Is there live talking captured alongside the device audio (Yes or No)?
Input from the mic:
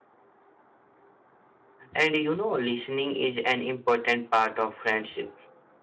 Yes